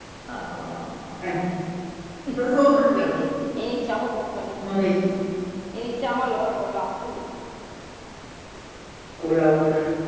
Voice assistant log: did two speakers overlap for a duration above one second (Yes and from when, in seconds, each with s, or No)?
No